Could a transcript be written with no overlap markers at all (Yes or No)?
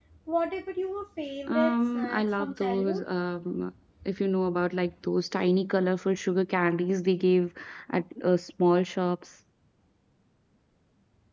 No